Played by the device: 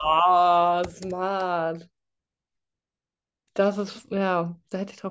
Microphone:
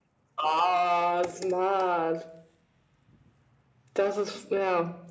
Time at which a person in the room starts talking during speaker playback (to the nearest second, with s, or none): none